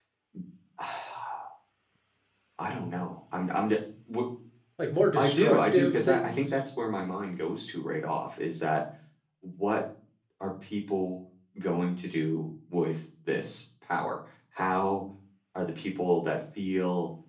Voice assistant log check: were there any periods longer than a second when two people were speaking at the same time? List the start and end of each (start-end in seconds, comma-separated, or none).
5.2-6.6